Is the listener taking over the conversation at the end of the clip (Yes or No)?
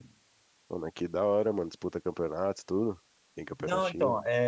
Yes